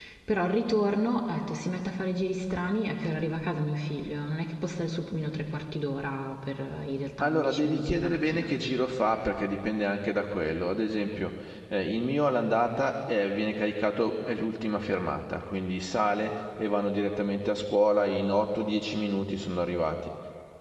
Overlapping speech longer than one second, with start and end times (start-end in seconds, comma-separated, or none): 7.2-8.5